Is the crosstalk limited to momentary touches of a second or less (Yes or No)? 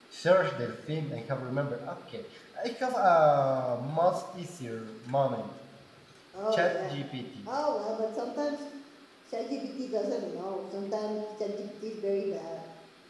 Yes